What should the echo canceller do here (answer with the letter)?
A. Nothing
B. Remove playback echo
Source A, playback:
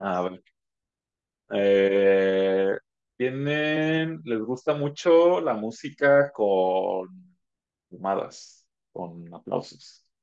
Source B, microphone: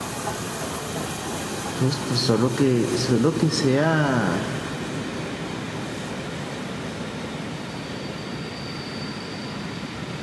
A